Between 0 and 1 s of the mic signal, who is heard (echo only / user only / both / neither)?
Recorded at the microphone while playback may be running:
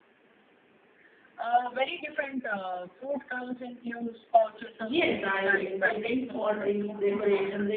neither